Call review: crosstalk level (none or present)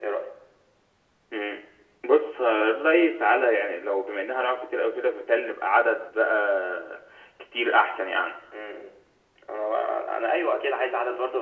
none